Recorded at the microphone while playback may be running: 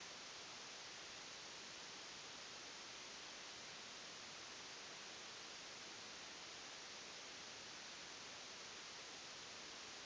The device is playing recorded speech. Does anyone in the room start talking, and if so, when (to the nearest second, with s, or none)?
none